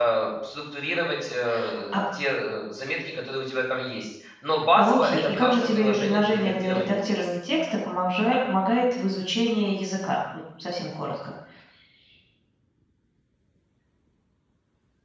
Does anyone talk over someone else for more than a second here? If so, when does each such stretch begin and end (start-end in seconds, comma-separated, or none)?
4.8-7.1